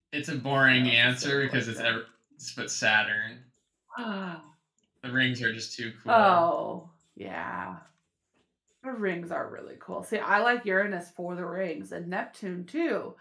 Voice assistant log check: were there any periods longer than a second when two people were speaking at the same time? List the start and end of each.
0.7-1.9

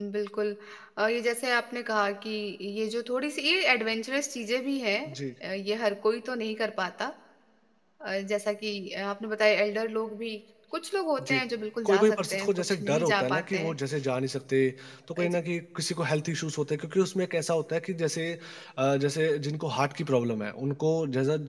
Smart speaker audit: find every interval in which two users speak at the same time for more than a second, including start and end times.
11.9-13.7

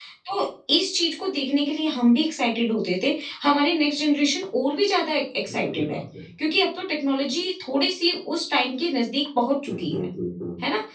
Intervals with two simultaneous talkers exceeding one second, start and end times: none

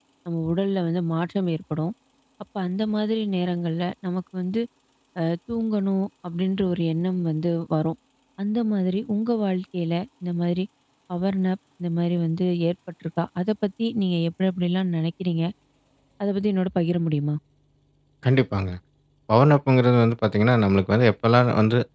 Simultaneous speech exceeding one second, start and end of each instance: none

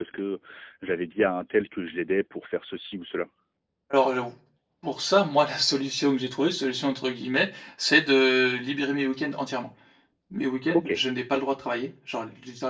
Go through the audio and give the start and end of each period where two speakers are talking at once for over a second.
none

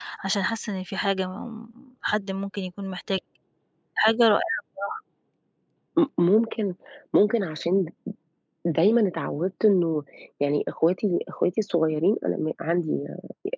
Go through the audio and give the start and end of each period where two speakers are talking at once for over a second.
none

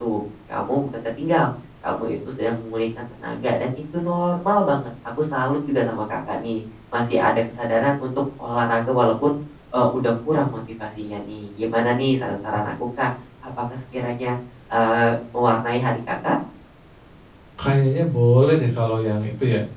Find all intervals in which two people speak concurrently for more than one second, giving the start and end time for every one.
none

